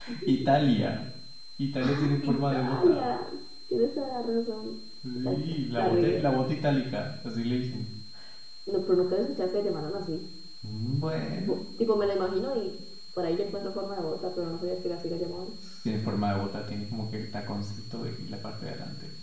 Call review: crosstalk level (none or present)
present